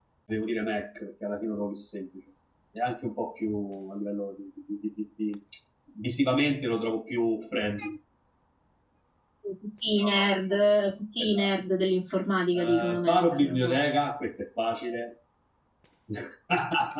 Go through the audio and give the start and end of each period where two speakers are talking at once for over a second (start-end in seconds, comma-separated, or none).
12.5-13.8